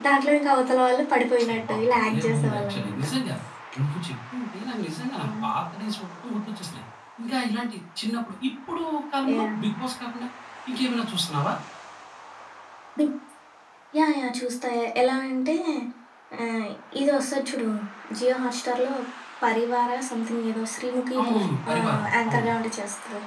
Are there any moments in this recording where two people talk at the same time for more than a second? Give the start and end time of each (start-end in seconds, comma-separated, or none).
1.5-3.0, 21.2-22.5